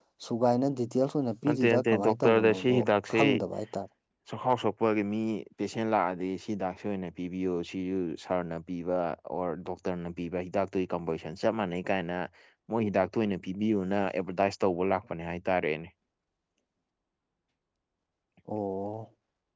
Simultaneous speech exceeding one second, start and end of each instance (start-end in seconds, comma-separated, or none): 1.5-2.8